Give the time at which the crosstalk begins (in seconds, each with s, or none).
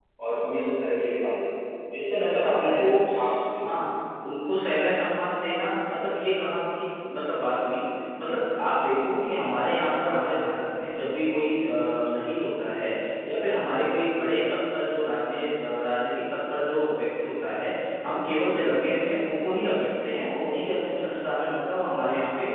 2.3 s